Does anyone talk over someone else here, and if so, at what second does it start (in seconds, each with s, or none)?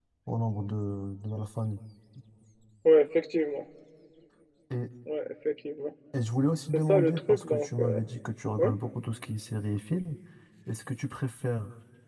6.7 s